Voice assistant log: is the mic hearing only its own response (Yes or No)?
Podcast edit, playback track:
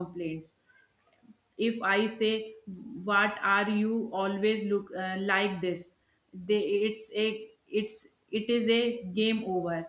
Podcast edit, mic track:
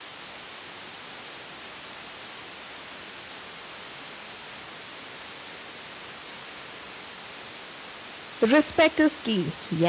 No